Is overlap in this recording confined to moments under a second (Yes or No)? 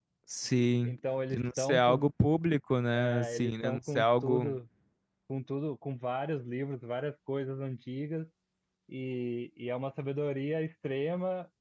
No